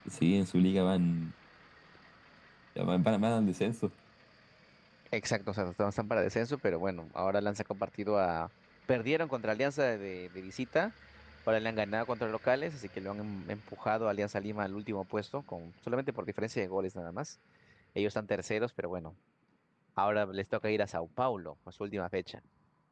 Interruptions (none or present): none